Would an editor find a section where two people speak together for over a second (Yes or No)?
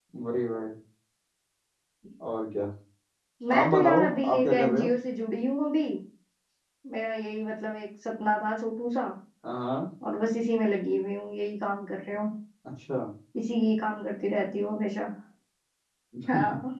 Yes